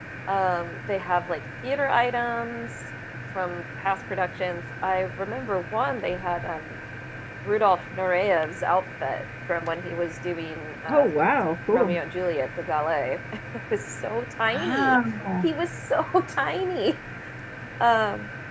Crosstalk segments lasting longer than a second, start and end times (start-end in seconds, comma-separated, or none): none